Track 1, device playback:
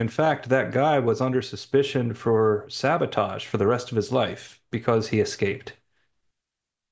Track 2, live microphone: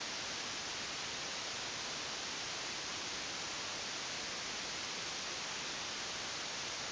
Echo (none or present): none